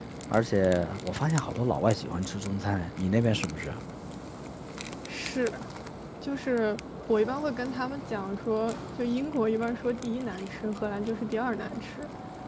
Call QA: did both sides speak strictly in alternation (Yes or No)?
Yes